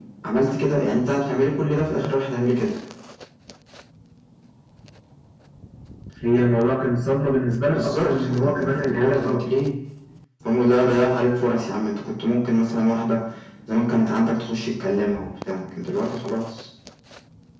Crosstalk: present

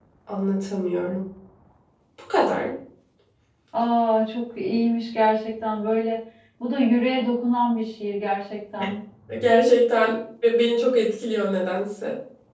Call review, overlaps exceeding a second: none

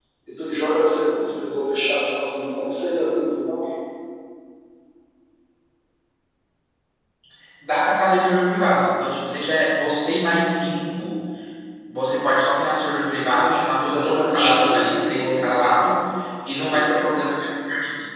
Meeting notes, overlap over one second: present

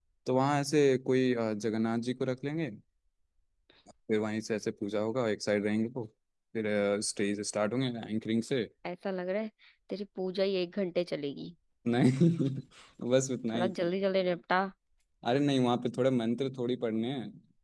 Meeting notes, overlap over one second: none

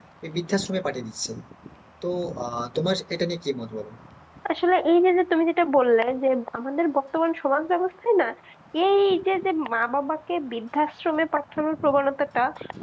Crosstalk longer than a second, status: none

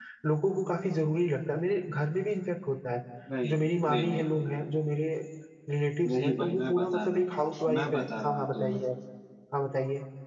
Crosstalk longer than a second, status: present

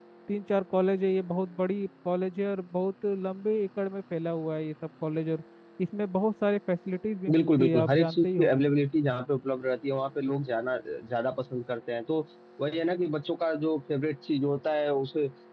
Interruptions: present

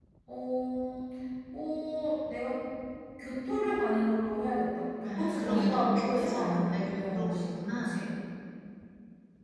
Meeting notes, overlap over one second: present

